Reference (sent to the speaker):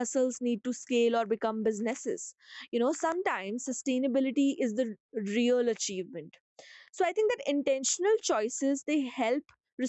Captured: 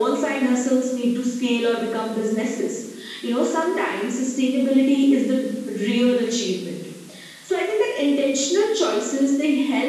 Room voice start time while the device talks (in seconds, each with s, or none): none